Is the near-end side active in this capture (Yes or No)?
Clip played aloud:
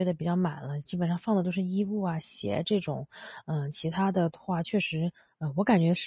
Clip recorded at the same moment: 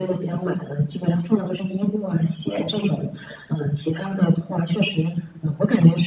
No